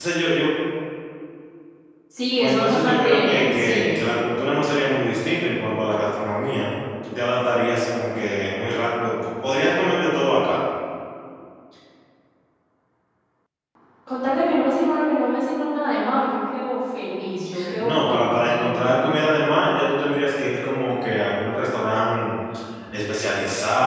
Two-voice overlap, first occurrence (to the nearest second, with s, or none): 2 s